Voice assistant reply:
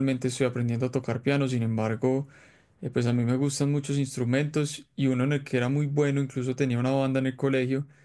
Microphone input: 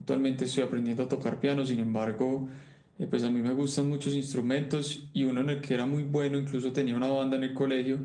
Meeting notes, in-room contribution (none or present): none